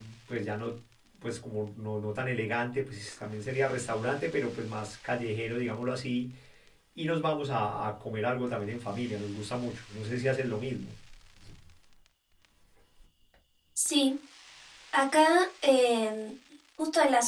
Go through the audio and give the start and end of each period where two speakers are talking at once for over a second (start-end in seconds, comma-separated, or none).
none